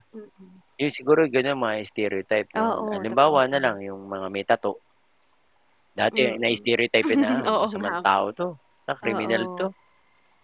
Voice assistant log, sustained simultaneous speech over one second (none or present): present